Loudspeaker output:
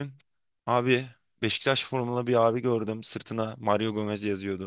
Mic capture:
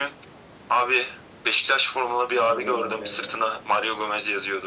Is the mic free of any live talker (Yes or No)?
No